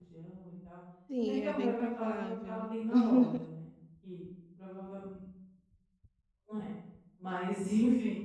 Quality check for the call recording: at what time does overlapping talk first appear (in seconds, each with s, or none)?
1.2 s